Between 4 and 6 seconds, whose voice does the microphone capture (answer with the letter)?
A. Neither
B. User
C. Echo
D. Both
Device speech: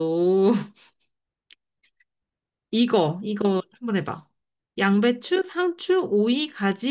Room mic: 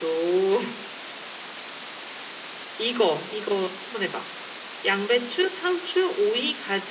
C